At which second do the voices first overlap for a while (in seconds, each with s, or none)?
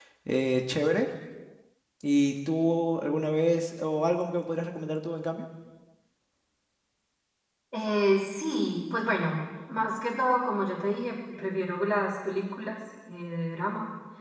none